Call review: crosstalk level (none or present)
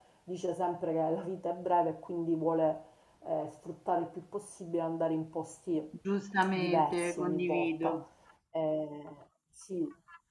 present